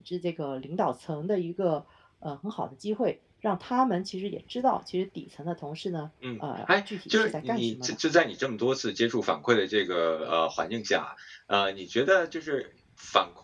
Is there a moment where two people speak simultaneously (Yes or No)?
Yes